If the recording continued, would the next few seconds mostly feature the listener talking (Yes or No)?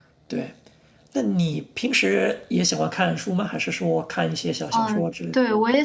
Yes